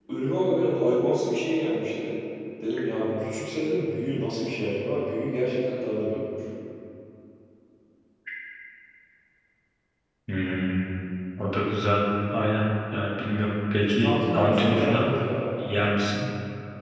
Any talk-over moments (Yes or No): Yes